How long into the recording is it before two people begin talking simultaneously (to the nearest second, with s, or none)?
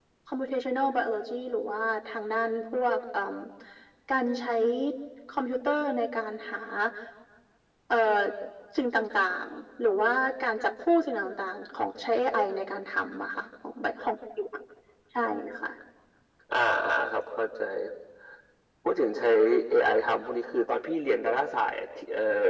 none